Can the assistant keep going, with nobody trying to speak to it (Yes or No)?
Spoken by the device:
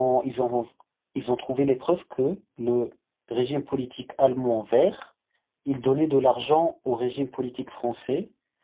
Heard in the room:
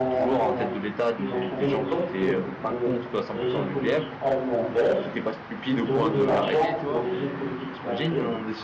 No